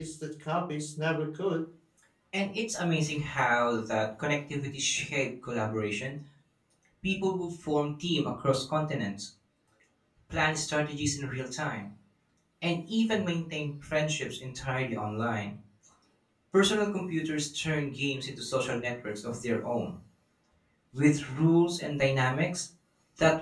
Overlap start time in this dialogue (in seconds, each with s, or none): none